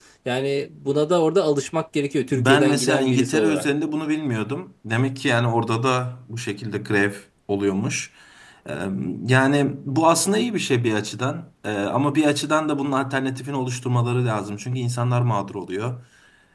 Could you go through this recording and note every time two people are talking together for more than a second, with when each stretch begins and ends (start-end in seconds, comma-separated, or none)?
2.4-3.6